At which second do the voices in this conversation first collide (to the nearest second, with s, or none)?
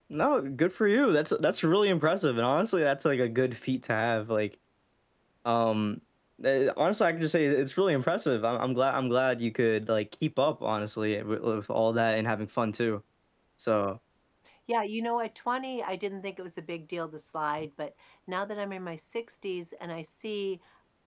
none